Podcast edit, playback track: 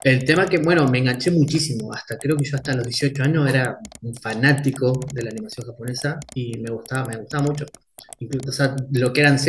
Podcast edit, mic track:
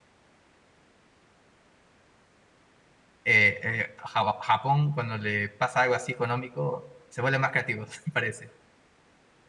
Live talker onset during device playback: 3.2 s

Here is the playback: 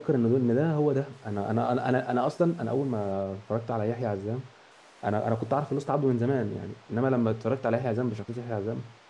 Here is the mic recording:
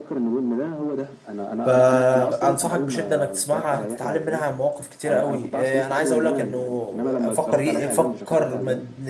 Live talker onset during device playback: 1.6 s

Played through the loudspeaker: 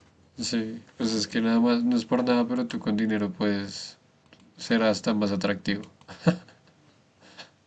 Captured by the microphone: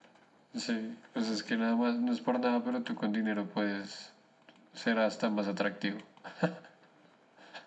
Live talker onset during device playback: none

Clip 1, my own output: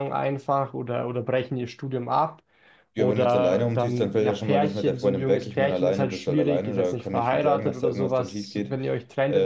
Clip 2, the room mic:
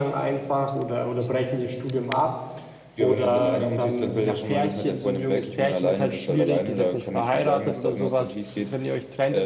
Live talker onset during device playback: none

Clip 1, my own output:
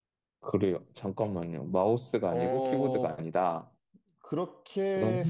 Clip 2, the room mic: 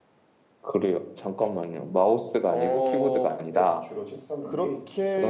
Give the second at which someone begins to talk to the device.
3.5 s

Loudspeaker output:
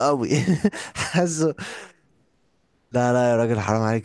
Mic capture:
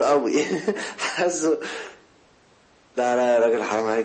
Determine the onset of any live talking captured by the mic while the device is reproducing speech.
none

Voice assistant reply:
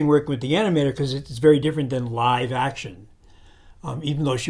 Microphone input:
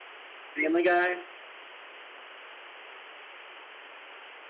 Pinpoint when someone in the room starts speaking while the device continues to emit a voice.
0.5 s

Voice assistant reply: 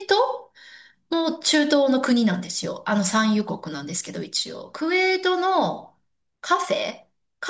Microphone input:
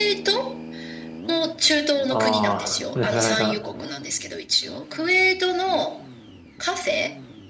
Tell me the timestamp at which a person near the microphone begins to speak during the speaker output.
2.1 s

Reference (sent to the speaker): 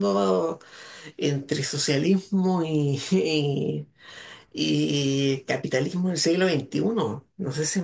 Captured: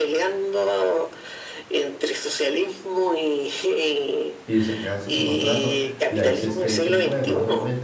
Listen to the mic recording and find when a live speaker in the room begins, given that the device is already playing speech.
4.5 s

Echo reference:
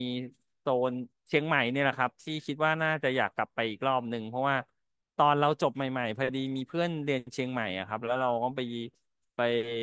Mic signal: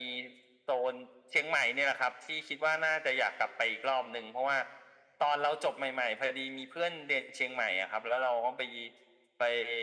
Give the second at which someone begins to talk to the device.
none

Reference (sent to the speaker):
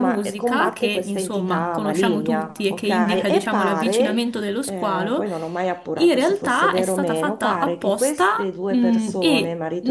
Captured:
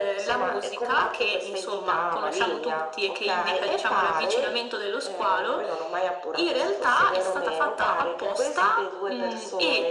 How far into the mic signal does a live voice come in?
none

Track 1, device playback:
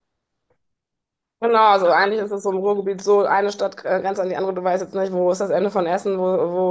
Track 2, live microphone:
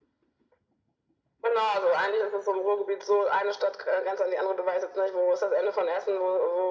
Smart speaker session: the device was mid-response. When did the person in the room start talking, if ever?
none

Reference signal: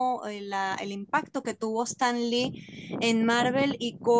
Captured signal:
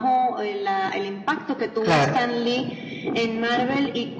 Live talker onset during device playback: 1.8 s

